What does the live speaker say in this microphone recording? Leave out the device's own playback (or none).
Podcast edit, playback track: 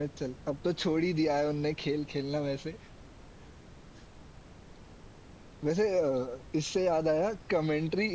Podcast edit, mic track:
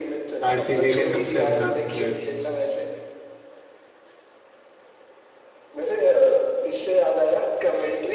आरसीबी के सबसे उम्दा प्लेयर